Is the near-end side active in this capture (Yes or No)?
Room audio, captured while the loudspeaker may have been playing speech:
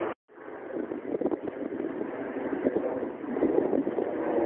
No